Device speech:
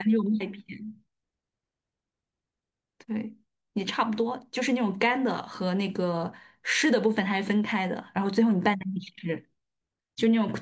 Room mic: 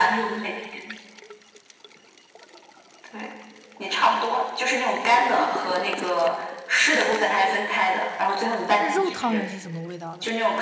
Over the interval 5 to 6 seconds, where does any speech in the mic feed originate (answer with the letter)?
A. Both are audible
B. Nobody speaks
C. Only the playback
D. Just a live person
C